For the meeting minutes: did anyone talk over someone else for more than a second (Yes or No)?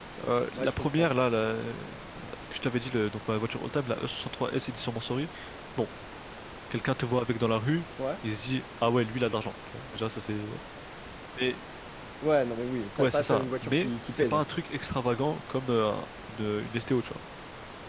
Yes